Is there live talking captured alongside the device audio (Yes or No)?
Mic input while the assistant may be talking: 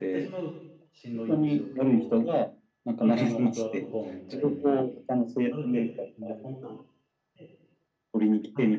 Yes